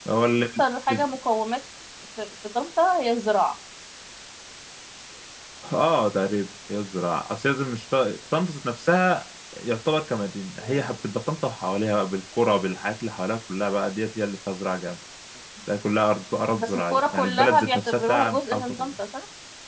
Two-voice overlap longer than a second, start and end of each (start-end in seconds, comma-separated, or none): 16.5-18.9